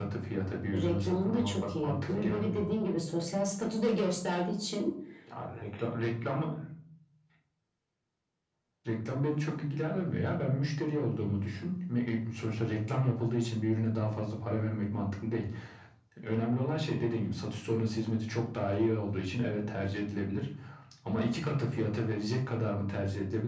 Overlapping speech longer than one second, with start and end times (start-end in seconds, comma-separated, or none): 0.7-2.6